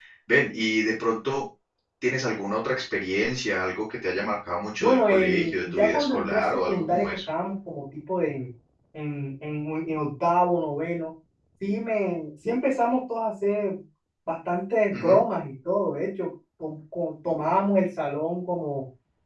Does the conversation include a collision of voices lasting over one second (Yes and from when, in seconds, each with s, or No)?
Yes, from 4.8 s